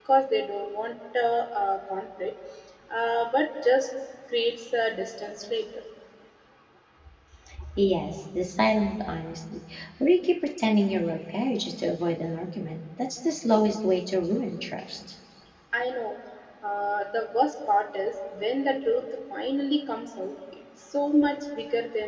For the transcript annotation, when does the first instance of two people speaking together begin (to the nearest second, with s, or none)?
none